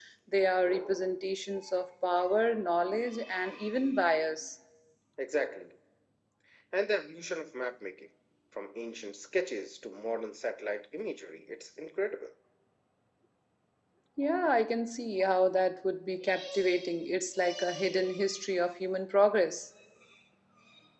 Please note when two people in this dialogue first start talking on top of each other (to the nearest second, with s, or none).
none